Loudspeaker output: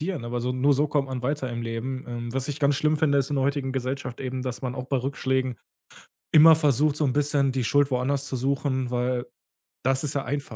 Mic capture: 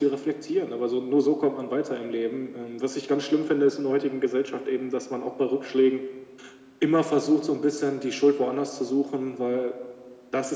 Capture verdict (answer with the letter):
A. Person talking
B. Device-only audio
B